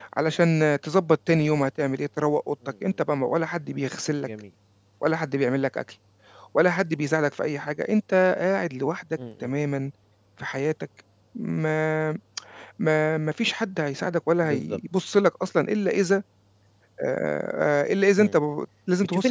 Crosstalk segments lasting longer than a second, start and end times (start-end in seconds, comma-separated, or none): none